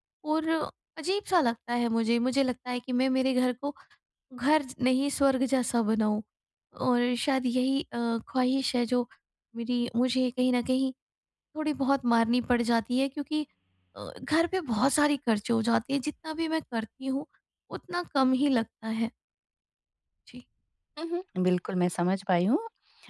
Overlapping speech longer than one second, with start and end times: none

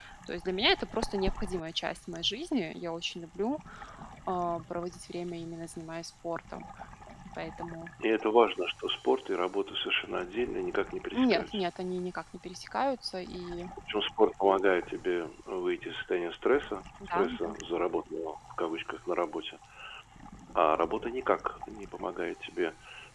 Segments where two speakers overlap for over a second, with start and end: none

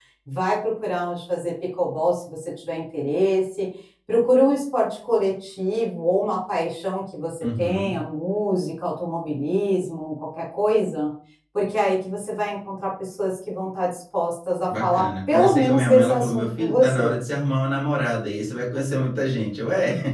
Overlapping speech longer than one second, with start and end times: 14.8-17.1

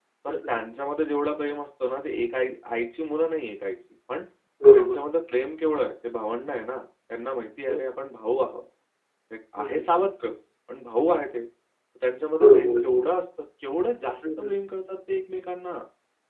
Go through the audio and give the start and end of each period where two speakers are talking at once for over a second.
none

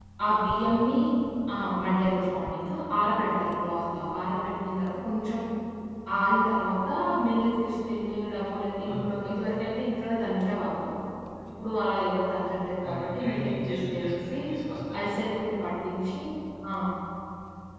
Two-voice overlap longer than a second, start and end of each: 12.8-14.4

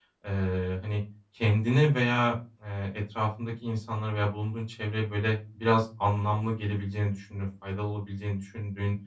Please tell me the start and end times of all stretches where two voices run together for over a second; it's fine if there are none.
none

